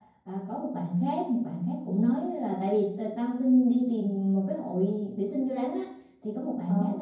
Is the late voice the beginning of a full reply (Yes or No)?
No